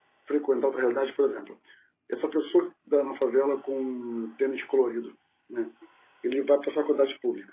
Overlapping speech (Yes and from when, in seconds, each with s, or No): No